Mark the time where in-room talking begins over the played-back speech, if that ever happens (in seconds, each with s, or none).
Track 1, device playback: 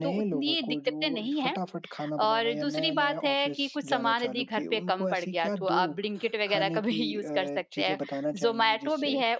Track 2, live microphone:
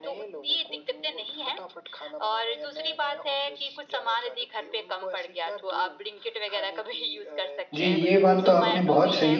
7.7 s